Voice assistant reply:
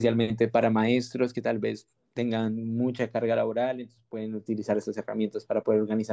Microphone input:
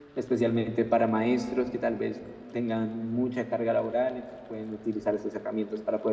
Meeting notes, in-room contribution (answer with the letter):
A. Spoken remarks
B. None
B